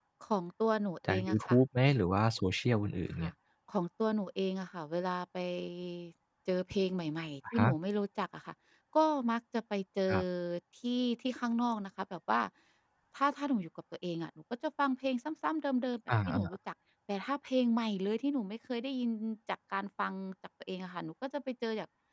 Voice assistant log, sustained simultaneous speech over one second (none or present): none